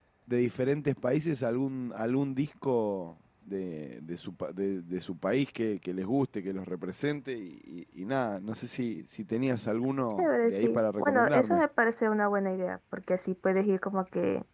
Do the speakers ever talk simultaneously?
Yes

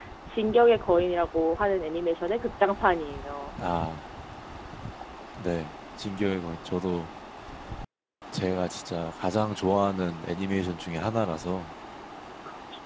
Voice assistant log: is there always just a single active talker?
Yes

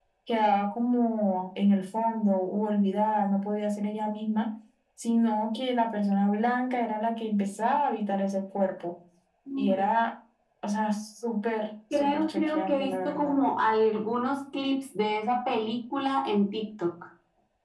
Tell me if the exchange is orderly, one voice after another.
No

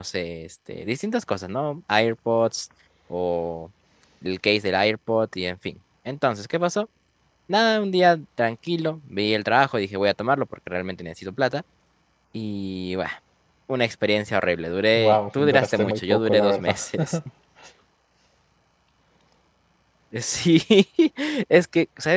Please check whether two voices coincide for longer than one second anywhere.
Yes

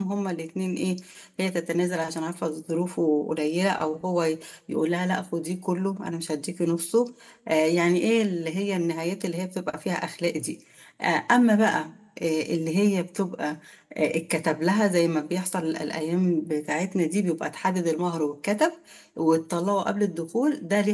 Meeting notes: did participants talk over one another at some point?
No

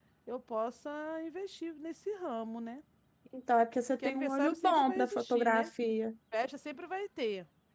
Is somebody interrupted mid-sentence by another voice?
Yes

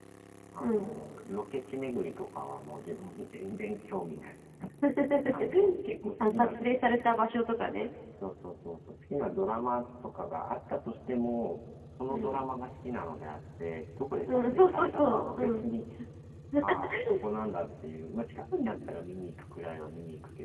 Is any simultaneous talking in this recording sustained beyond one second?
Yes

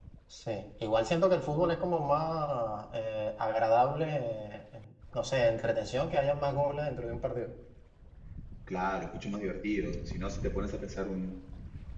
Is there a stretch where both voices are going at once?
No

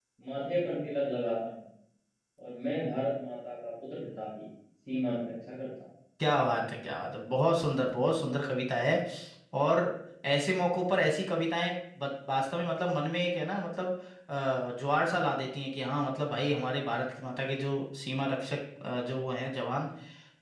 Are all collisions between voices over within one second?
Yes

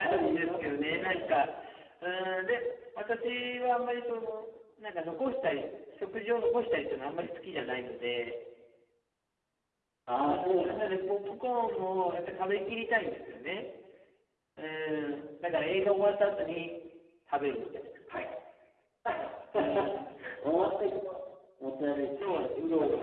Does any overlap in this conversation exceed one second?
Yes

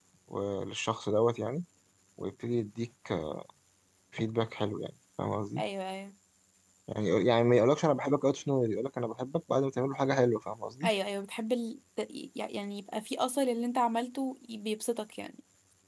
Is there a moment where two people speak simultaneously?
No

